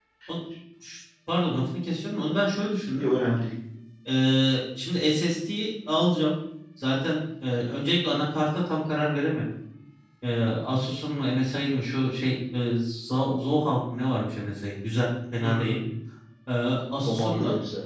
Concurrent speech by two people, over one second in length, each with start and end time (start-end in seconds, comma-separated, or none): none